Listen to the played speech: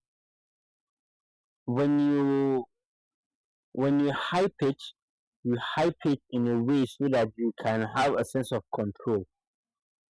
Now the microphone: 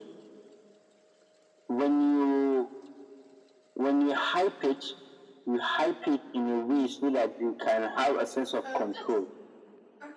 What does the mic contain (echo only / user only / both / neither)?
both